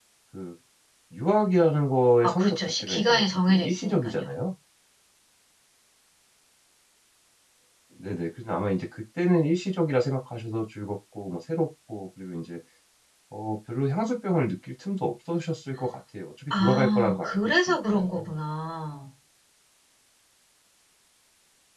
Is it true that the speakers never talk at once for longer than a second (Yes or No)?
No